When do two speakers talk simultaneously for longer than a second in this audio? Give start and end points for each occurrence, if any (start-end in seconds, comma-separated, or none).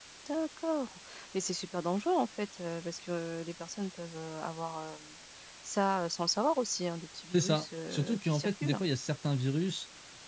7.3-8.8